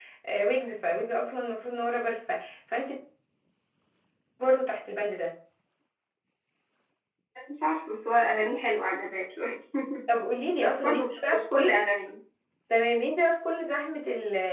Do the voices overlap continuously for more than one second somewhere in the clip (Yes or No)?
Yes